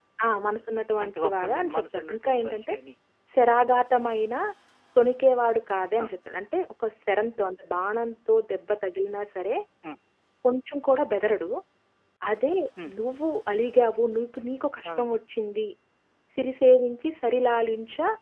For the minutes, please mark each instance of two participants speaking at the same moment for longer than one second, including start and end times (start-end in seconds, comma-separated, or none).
1.0-2.7